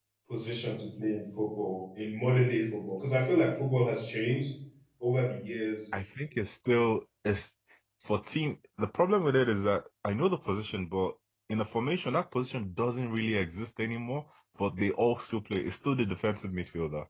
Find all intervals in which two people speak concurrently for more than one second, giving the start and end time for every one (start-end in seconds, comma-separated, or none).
none